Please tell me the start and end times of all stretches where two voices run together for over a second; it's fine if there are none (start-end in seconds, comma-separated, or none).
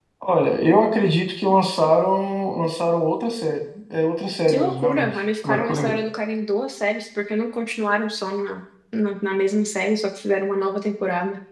4.5-6.0